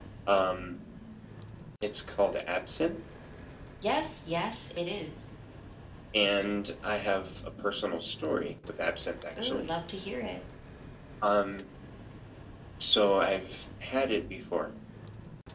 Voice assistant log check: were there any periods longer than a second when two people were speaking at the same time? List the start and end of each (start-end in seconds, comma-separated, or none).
none